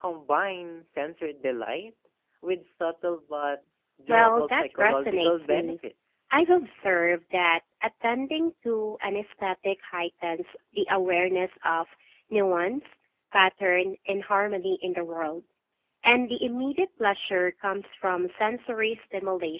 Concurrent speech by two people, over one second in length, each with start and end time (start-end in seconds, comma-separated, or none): 4.1-5.8